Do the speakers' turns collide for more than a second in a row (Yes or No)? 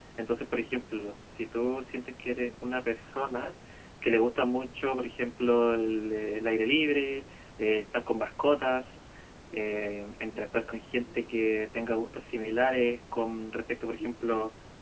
No